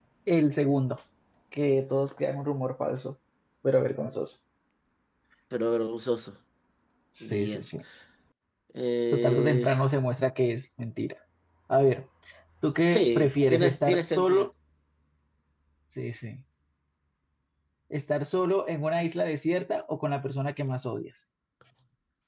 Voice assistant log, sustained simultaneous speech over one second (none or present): present